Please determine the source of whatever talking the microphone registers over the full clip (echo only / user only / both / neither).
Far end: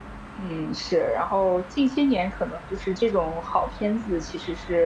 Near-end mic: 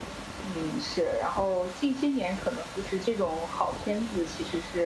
echo only